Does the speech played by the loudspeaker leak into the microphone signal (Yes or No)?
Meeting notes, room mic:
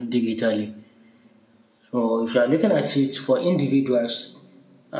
No